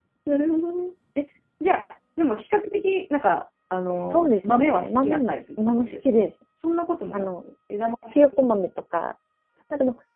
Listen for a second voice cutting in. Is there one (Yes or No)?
Yes